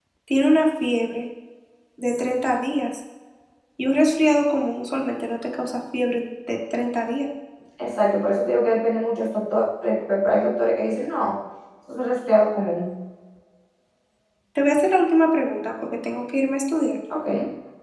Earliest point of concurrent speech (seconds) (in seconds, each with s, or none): none